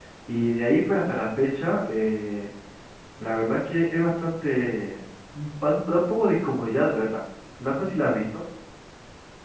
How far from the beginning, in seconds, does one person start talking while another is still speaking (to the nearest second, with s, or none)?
none